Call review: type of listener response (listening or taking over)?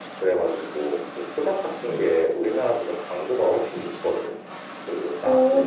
taking over